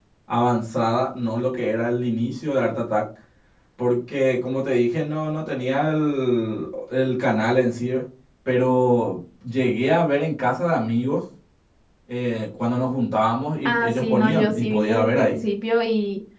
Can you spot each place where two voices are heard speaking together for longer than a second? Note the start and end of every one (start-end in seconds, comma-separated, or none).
13.7-15.4